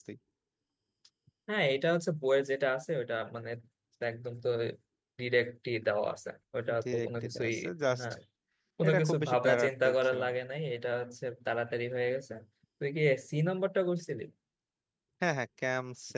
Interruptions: present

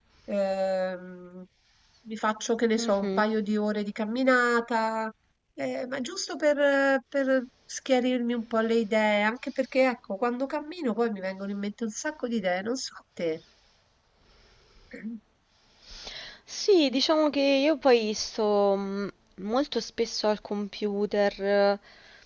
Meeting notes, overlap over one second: none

